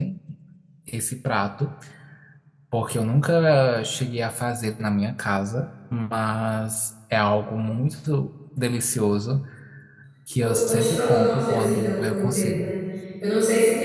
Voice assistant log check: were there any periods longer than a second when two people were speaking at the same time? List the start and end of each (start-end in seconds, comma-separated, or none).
10.4-12.7